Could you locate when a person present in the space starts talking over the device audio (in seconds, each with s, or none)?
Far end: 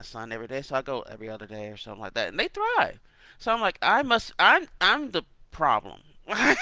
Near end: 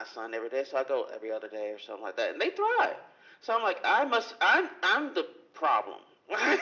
none